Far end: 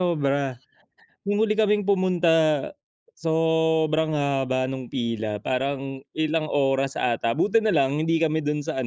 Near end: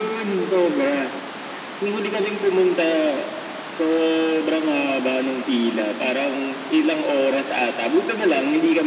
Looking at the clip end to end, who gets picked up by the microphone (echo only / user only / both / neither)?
echo only